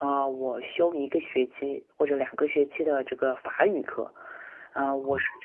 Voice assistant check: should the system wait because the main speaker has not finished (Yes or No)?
Yes